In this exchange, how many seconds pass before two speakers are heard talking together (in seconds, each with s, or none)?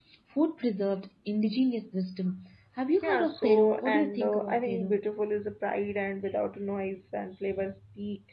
3.0 s